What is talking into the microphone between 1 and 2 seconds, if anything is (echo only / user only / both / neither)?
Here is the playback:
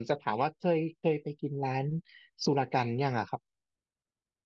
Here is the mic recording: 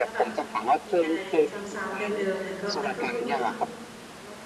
both